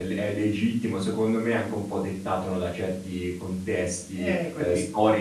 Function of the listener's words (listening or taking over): listening